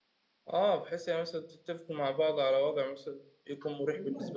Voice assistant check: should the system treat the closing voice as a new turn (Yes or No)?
Yes